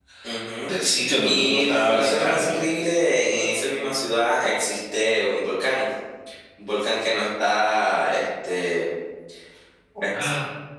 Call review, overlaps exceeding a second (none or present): present